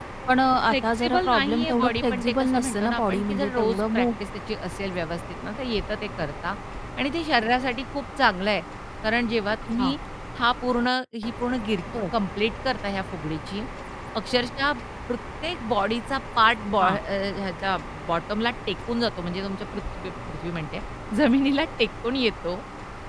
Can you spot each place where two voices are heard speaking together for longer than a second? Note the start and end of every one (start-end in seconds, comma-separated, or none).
0.7-4.0